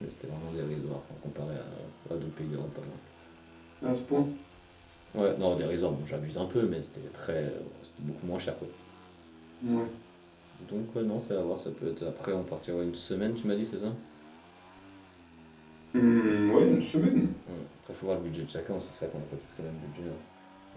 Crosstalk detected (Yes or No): No